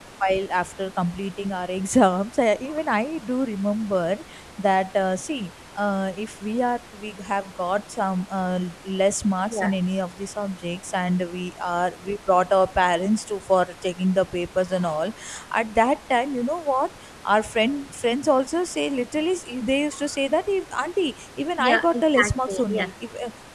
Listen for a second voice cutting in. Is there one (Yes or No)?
Yes